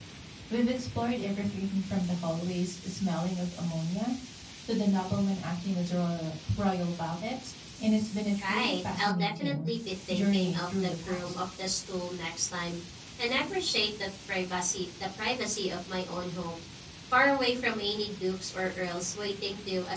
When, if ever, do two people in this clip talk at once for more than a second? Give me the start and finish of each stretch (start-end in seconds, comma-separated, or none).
8.4-9.7, 10.1-11.3